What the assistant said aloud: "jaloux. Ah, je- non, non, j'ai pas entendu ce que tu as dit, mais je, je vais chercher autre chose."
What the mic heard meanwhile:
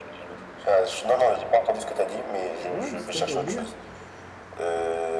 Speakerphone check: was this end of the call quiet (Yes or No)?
No